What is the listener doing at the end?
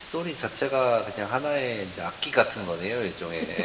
taking over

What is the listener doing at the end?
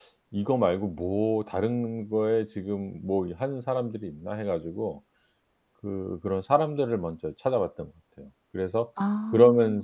listening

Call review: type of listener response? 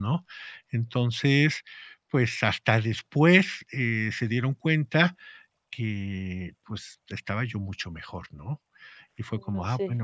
listening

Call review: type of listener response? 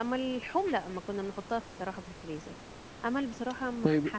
taking over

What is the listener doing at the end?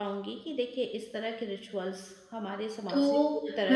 taking over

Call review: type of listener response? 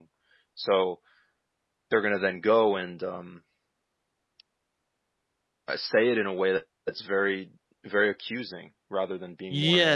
taking over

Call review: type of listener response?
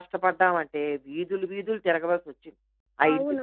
taking over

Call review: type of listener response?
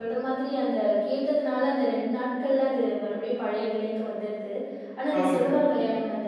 listening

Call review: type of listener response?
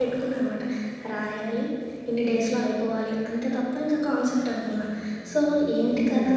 listening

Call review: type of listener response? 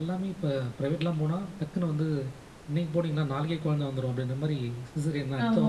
taking over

